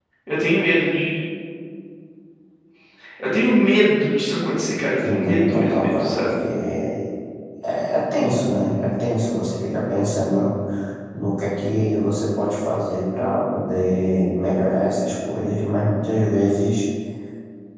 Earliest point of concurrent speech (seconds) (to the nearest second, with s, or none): 5 s